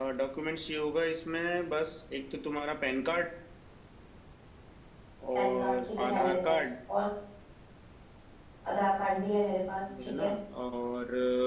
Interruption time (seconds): 5.4 s

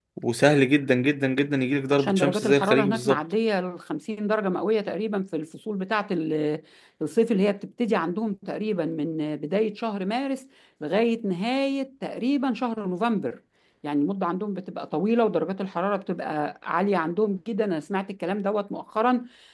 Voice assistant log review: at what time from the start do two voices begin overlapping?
1.9 s

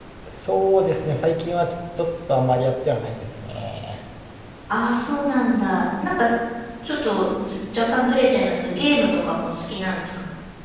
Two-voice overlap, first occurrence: none

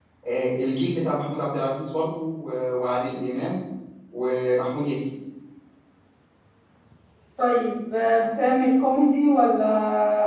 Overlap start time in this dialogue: none

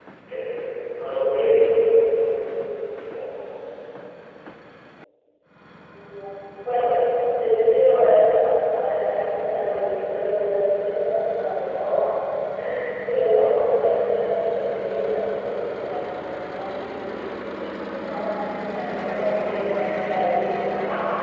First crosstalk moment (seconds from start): none

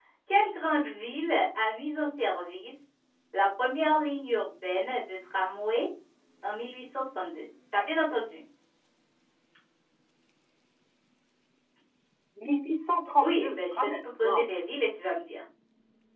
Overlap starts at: 13.2 s

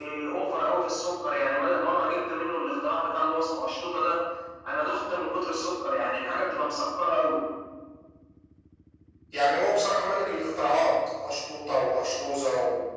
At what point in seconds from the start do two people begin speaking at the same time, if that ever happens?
none

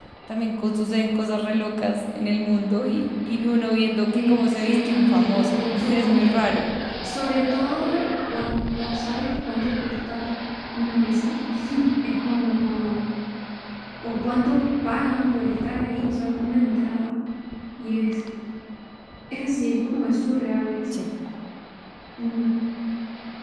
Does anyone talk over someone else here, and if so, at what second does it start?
4.1 s

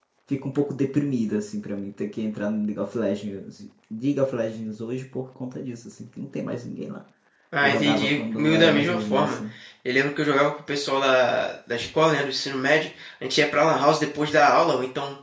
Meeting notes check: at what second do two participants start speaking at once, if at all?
7.6 s

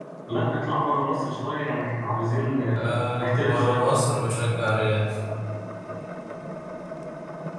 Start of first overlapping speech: 2.7 s

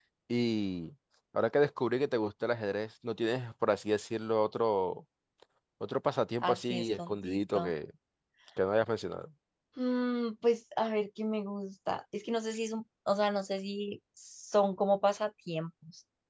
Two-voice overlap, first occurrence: 6.4 s

